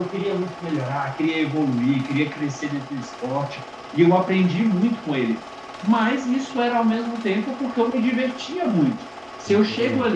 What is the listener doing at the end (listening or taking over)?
listening